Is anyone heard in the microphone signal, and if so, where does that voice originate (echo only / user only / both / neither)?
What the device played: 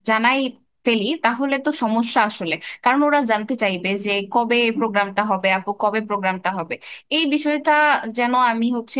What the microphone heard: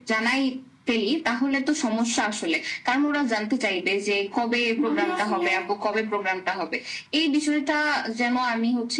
both